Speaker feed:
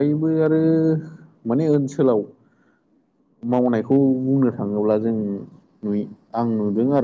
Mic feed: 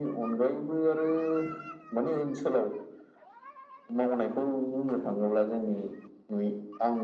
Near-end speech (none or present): none